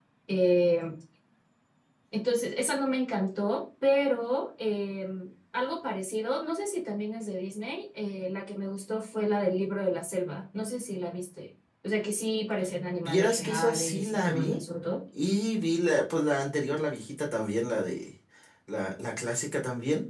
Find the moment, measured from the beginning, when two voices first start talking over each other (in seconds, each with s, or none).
13.0 s